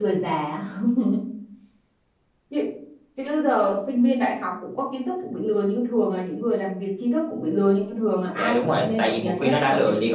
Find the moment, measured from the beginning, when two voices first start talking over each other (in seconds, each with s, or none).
8.4 s